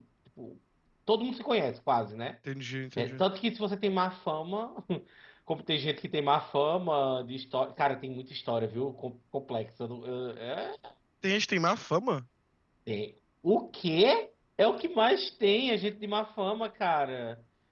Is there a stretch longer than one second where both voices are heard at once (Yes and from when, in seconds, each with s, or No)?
No